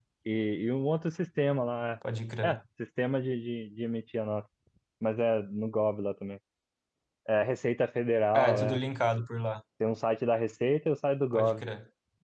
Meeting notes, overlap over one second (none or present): none